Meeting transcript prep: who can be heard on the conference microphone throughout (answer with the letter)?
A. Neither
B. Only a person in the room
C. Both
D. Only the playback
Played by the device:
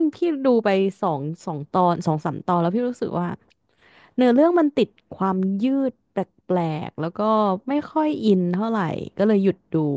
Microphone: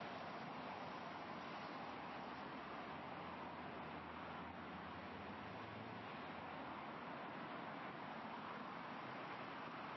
A